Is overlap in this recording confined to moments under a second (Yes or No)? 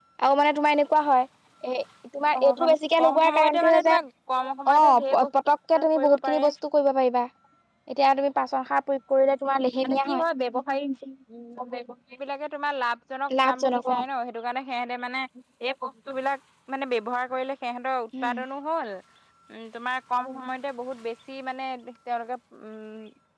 No